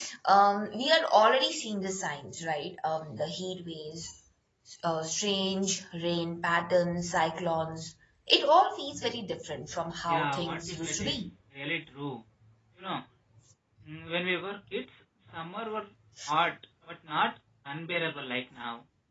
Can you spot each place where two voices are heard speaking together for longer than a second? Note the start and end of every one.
10.1-11.3

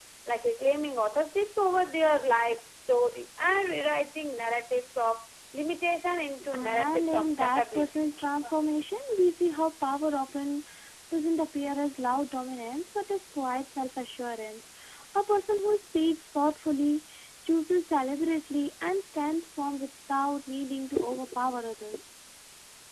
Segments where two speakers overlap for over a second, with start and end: 6.5-8.1

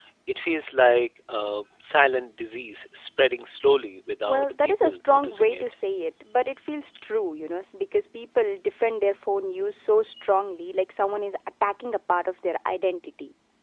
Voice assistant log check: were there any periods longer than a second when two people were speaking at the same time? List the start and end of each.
4.3-5.6

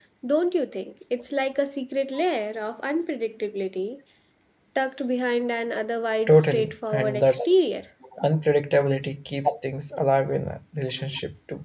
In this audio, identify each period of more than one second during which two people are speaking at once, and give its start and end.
6.3-7.5

